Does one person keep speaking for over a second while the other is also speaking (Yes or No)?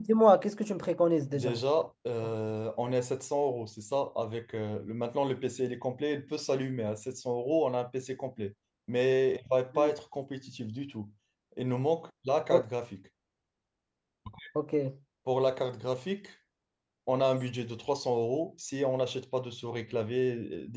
No